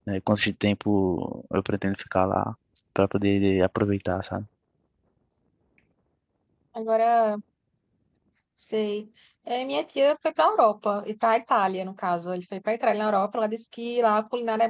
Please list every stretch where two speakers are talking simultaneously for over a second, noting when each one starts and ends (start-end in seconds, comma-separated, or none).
none